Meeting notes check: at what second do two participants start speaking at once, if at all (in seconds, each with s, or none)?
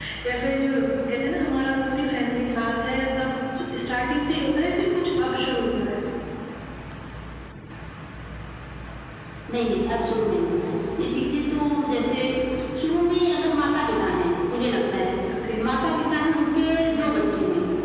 none